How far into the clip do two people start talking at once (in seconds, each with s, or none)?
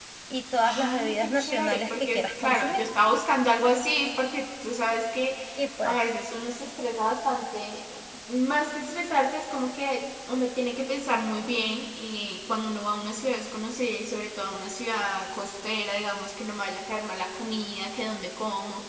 0.6 s